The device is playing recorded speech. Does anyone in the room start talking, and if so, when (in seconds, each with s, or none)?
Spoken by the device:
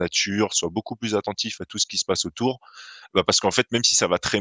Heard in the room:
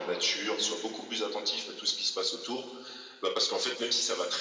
none